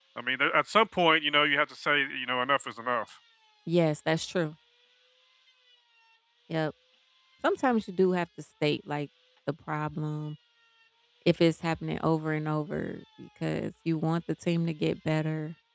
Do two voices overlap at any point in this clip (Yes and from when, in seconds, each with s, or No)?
No